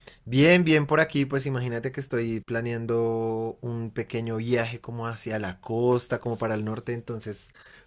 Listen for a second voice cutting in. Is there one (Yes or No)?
No